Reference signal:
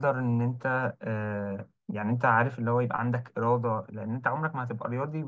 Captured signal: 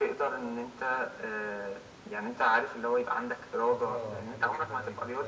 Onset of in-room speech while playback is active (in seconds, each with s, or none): 3.6 s